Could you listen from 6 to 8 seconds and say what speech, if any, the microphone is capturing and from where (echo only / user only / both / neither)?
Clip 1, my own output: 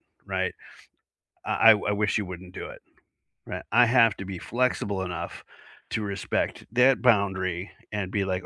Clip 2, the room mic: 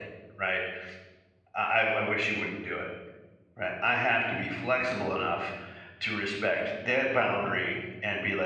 echo only